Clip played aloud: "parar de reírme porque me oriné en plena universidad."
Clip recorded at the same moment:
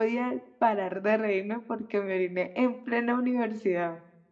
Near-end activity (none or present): none